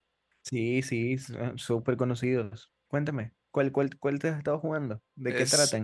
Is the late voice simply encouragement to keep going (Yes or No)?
No